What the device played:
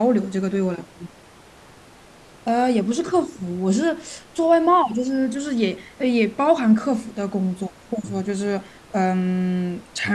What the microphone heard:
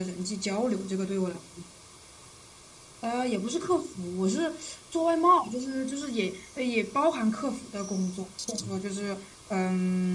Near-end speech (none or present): none